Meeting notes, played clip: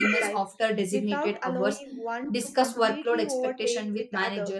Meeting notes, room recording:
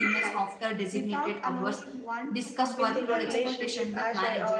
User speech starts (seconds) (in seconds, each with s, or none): 2.8 s